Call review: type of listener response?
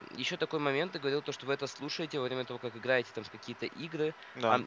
listening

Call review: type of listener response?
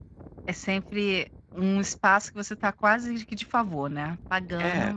taking over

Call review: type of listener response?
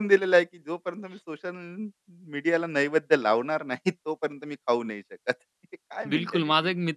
taking over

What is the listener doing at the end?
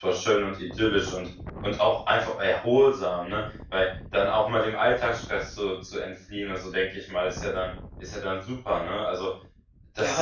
taking over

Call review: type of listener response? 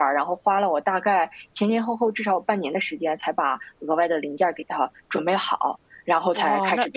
taking over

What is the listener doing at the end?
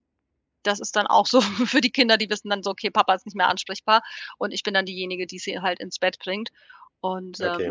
listening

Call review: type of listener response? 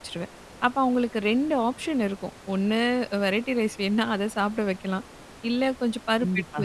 listening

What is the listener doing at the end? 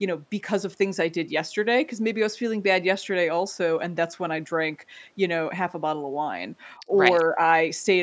listening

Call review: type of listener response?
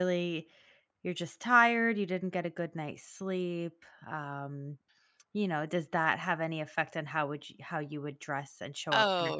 taking over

